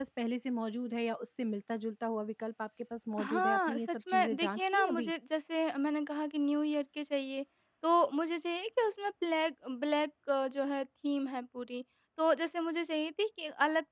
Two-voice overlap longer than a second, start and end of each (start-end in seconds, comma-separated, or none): 3.2-5.1